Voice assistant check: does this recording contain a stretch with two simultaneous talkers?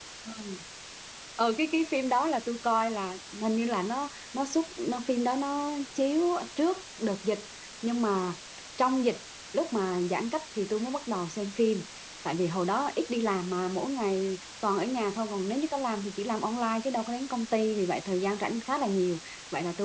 No

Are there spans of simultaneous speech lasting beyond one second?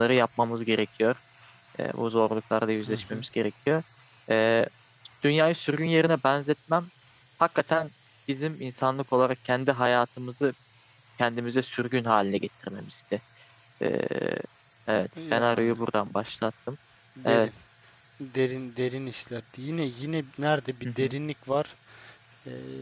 No

